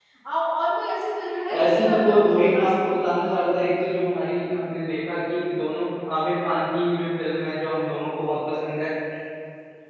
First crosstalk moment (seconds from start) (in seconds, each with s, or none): 1.3 s